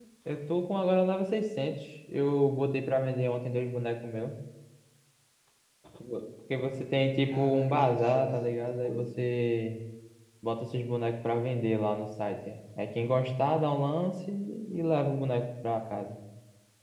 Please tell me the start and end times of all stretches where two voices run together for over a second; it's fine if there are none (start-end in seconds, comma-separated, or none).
7.2-9.1